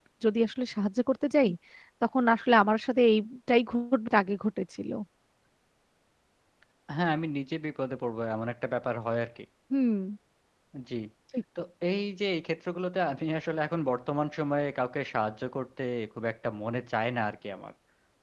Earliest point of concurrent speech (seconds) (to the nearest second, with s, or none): none